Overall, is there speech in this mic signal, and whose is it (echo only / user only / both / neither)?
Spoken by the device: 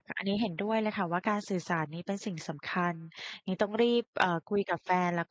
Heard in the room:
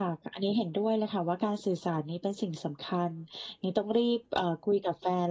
echo only